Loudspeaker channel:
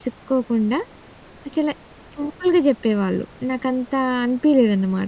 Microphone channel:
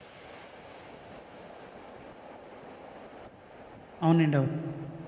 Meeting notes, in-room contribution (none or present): present